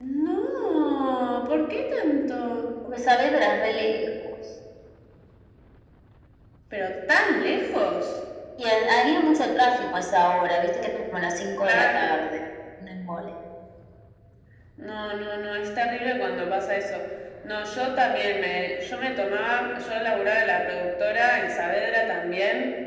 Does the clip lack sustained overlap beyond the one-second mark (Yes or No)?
Yes